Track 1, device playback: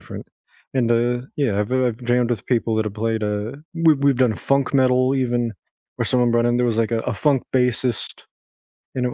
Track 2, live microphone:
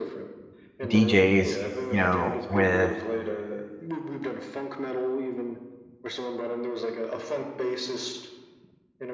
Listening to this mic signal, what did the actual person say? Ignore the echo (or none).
DJs, you know, with